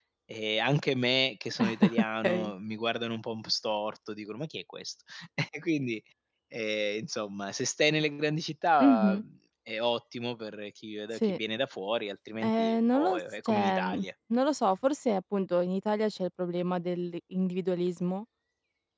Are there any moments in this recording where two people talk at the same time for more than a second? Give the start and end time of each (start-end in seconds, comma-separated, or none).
12.4-13.8